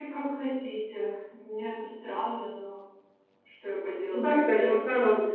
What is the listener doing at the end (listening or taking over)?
taking over